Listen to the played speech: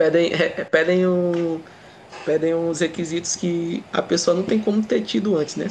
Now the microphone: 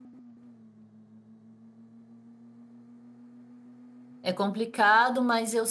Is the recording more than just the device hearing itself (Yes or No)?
Yes